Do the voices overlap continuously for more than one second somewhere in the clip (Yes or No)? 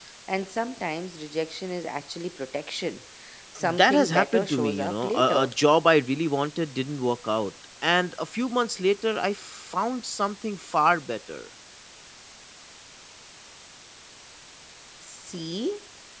Yes